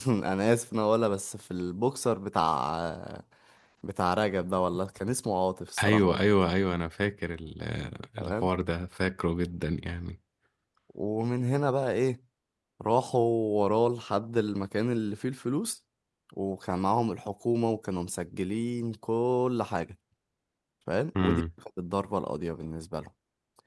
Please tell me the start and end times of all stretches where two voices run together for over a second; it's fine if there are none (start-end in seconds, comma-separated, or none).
none